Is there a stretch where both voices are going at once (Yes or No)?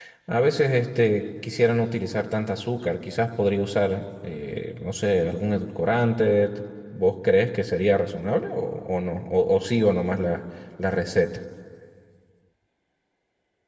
No